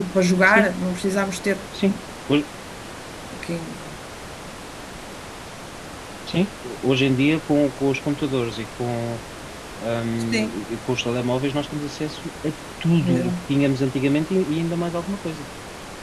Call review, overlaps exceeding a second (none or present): none